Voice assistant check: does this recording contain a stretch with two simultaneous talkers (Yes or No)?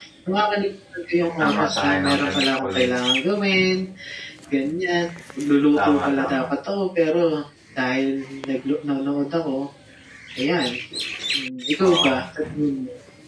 Yes